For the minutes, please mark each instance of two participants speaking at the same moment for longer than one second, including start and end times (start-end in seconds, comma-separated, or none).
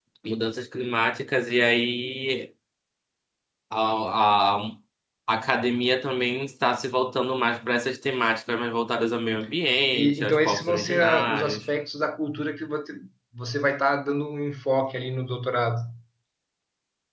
9.9-11.7